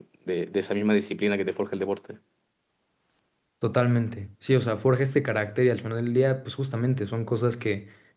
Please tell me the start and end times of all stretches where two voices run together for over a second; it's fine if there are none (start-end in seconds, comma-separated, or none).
none